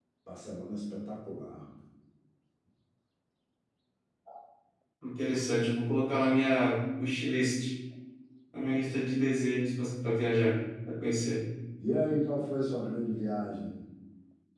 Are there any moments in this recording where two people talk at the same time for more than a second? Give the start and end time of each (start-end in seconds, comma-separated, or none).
none